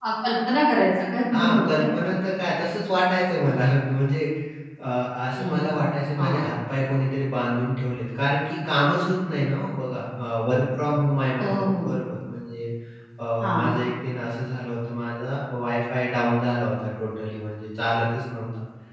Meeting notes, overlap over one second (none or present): none